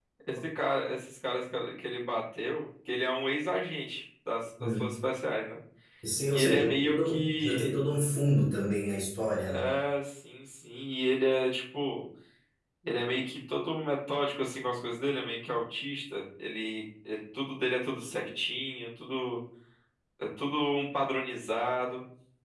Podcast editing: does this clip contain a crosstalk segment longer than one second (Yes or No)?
Yes